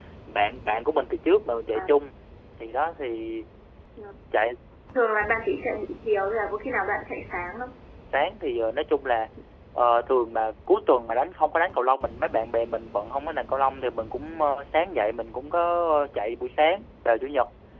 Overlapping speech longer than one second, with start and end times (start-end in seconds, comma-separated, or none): none